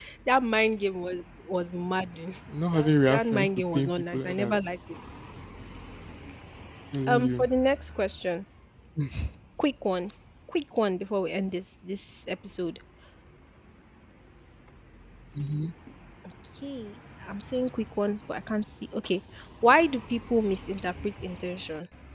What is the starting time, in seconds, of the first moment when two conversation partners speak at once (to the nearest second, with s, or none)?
3 s